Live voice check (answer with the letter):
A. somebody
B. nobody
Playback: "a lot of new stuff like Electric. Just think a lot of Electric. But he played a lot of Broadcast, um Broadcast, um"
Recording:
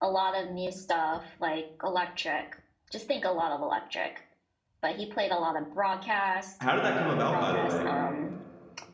A